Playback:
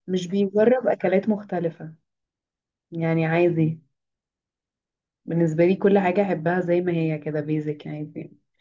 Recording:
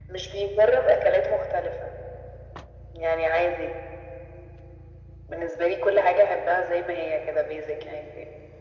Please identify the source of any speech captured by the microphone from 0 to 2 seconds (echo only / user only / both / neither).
echo only